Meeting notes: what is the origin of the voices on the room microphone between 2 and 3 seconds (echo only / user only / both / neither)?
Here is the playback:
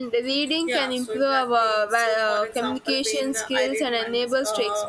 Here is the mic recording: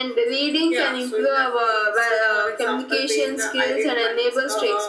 echo only